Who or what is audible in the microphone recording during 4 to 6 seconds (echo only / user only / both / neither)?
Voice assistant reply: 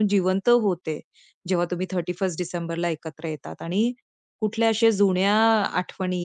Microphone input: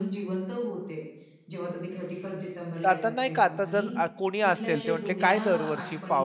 both